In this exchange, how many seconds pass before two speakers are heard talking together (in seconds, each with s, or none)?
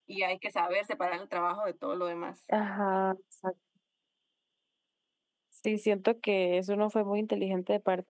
none